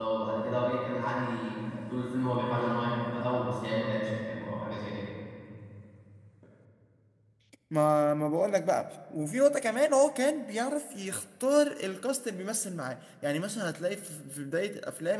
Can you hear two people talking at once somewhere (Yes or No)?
No